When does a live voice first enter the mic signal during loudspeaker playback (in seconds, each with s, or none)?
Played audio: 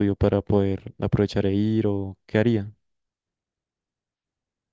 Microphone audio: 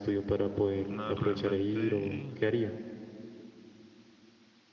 0.9 s